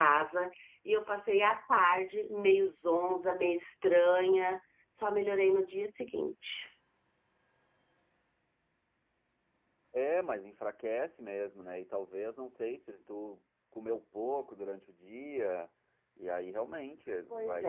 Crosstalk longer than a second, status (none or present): none